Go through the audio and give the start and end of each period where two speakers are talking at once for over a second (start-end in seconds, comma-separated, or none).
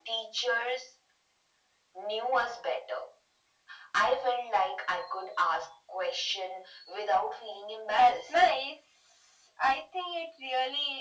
none